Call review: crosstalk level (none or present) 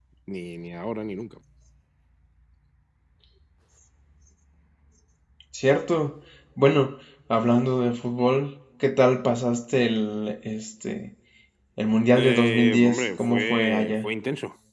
present